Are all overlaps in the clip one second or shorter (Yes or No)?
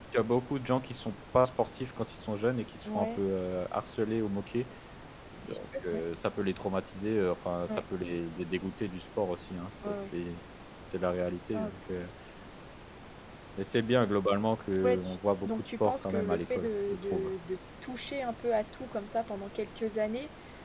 No